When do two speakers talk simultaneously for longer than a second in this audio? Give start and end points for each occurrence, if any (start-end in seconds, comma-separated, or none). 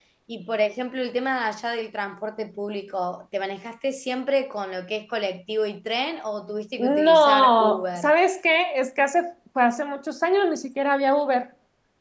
6.8-8.1